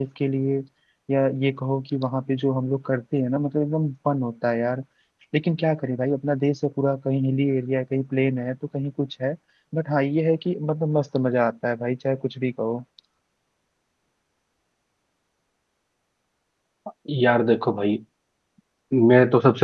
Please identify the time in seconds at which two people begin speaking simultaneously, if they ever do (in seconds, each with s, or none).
none